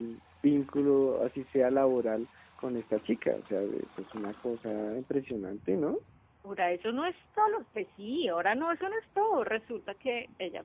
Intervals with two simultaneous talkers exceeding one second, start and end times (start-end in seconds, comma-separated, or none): none